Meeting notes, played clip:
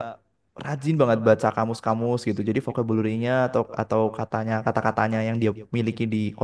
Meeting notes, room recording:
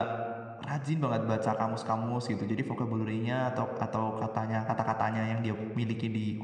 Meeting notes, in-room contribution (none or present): none